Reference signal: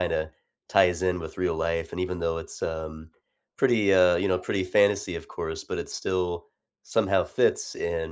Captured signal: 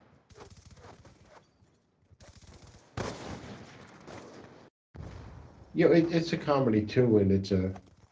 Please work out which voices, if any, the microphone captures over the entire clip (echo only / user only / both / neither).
user only